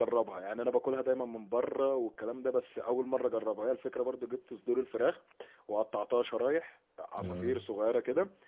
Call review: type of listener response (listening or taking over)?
listening